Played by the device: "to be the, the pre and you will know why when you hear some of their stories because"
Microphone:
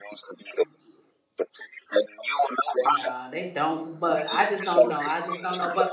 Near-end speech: present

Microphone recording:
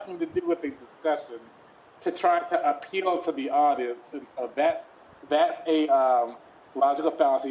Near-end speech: none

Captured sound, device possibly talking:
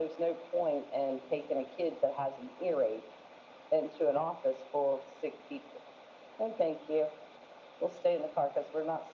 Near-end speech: none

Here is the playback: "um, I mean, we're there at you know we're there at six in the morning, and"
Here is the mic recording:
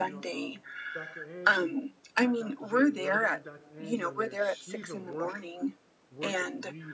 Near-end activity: present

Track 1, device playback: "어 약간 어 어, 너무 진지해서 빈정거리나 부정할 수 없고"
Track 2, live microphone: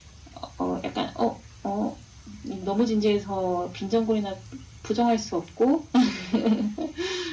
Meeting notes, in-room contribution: none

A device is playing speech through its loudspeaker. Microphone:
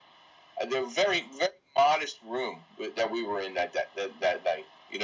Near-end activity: none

